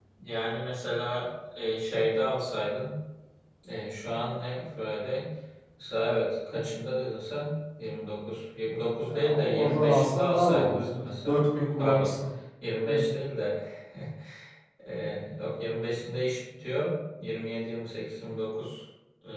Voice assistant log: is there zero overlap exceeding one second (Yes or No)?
No